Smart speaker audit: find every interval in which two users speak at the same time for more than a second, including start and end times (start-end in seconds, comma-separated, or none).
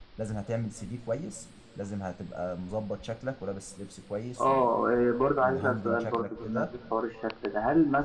5.4-6.8